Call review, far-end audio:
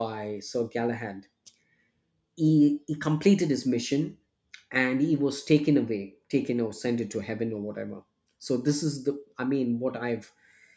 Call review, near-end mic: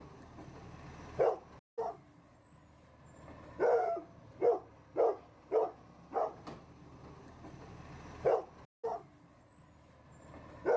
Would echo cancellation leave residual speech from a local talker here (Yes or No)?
No